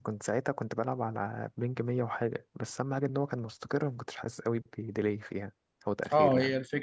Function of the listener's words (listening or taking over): taking over